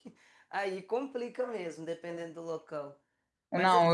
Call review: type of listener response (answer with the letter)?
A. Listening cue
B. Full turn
B